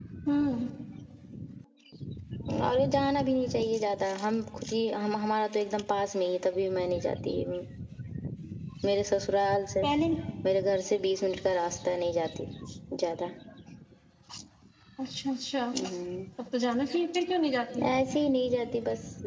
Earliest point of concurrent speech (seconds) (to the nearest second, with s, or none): none